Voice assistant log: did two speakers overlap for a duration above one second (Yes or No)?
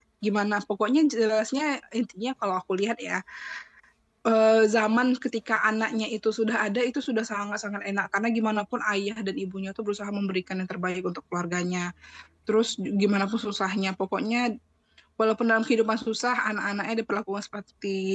No